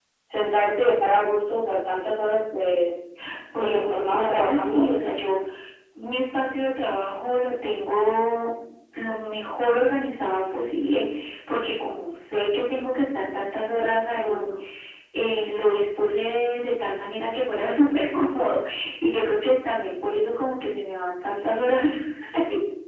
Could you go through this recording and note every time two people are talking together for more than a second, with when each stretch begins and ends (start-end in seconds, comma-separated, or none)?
3.6-4.8